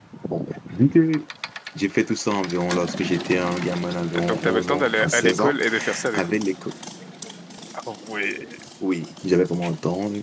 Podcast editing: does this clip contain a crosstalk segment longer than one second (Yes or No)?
Yes